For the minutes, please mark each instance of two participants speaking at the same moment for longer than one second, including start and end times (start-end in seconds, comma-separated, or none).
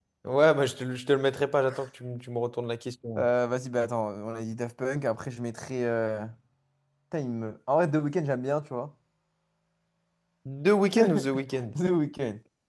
none